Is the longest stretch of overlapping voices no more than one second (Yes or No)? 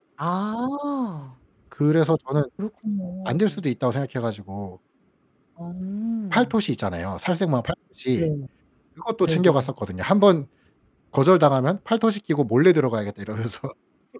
Yes